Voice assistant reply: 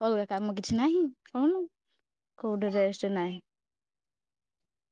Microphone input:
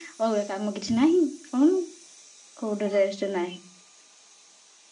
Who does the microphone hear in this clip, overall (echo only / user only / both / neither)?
echo only